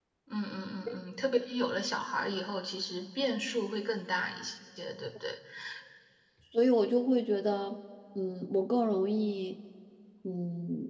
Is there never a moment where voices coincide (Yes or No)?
Yes